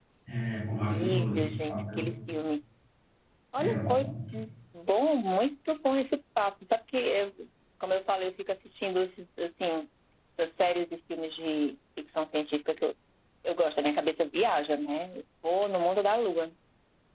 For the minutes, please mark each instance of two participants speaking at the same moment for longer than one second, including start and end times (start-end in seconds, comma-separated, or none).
0.8-2.0